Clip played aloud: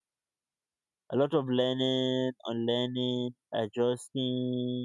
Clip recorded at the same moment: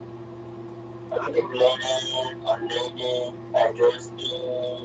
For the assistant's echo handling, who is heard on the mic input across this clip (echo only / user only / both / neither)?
echo only